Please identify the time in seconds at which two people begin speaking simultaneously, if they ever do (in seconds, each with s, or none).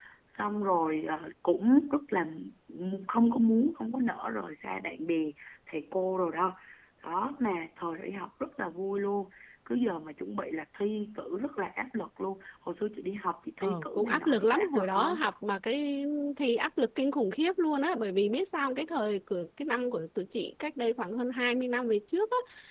13.6 s